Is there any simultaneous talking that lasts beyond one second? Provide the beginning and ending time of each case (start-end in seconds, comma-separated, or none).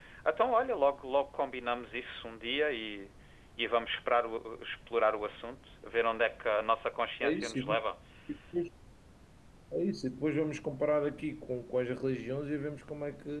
none